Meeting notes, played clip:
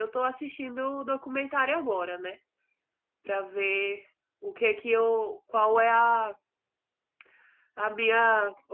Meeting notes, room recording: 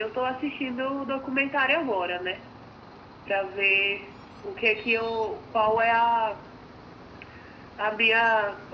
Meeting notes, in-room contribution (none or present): none